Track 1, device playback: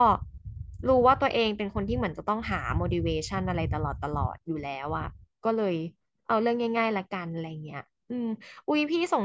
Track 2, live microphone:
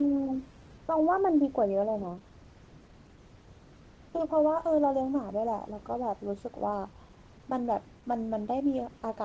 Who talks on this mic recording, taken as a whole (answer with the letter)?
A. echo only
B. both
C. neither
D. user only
D